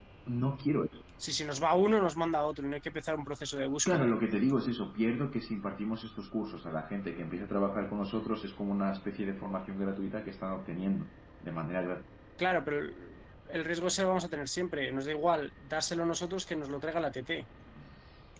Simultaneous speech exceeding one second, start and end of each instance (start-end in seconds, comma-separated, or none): none